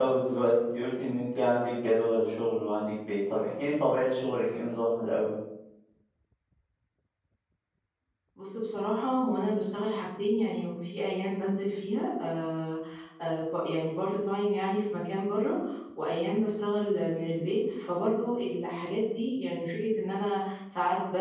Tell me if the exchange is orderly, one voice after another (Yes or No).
Yes